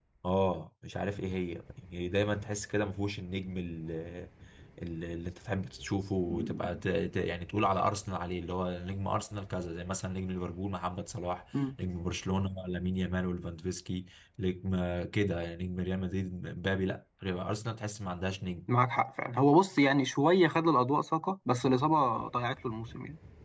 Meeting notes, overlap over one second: none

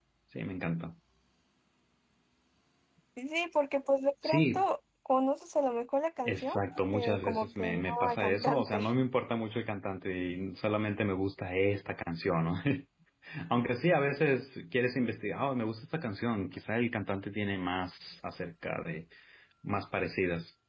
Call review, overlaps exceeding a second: present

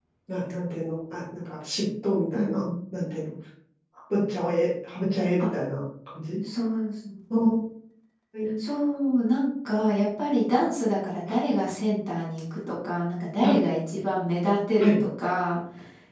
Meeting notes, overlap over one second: none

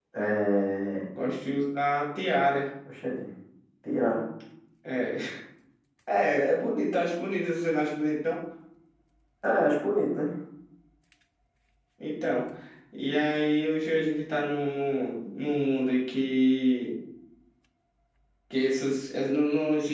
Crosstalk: none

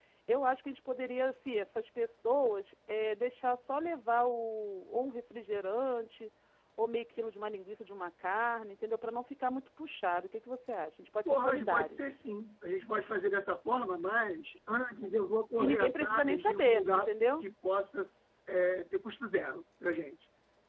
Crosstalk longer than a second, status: present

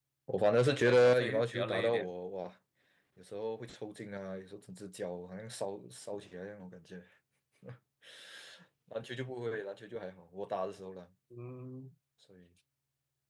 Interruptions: present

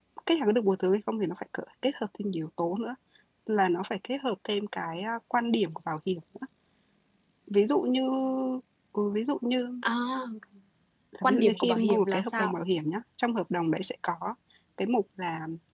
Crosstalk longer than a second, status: present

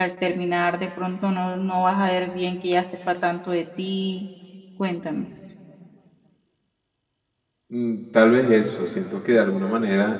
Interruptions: none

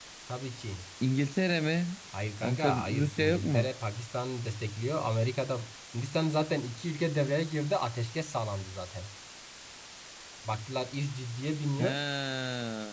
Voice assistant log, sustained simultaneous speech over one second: present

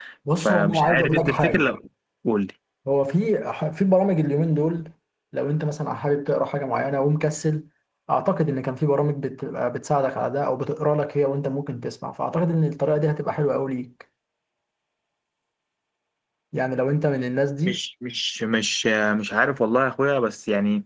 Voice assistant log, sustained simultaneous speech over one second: present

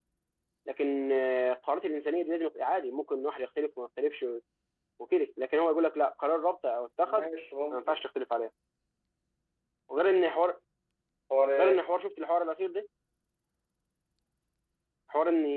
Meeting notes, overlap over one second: none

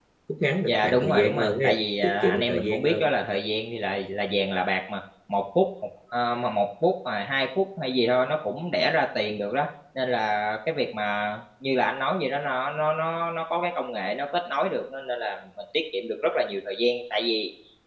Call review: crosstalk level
present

